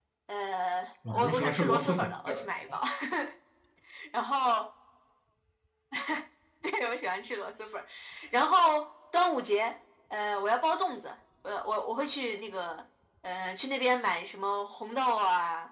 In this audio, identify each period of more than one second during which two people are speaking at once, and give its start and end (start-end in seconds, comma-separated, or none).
1.1-2.7